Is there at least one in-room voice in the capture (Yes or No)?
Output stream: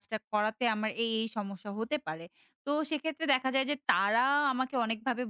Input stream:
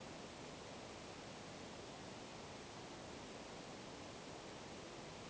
No